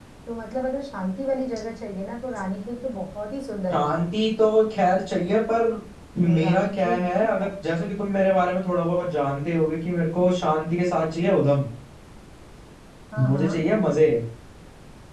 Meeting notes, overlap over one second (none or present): present